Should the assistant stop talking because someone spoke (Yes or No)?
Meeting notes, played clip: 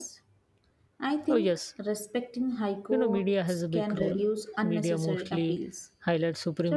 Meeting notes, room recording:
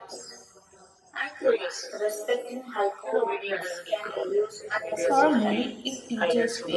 Yes